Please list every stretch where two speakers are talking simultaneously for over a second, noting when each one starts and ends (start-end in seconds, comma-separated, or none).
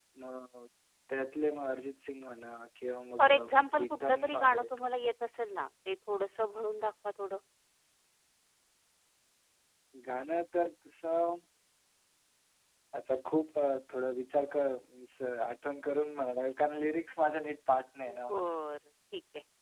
3.2-4.6